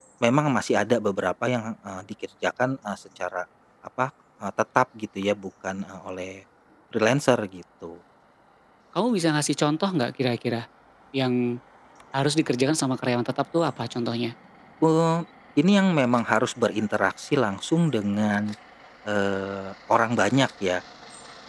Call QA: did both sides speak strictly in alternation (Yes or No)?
Yes